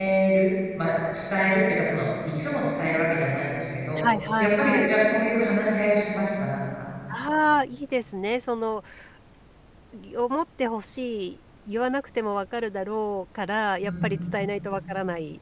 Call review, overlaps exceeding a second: none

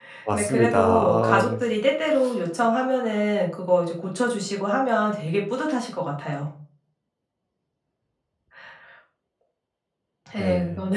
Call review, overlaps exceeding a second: present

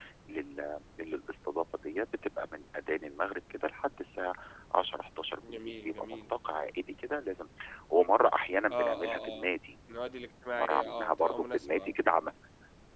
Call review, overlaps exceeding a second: present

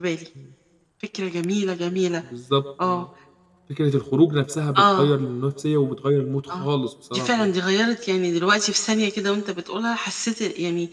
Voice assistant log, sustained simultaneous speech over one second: none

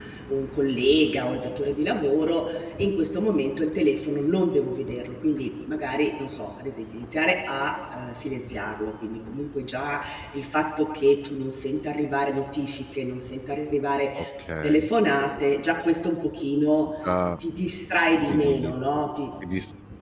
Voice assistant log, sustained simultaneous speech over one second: none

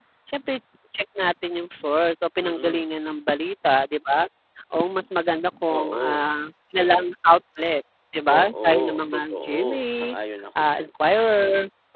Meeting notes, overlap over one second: present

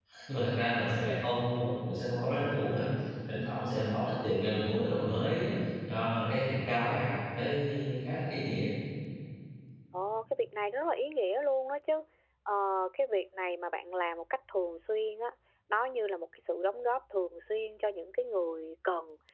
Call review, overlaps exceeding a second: none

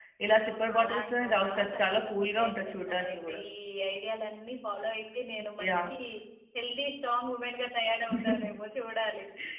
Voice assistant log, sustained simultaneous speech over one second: present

